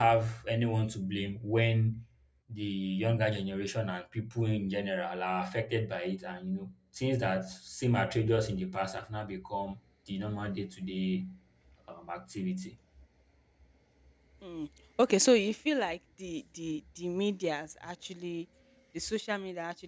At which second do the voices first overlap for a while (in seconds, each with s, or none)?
none